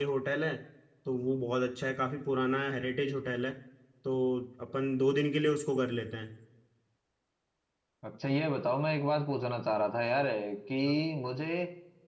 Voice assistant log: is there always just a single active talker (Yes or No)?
Yes